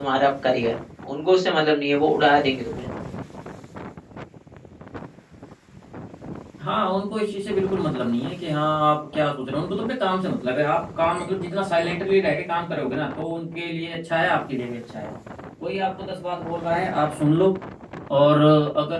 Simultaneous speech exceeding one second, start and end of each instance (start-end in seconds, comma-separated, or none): none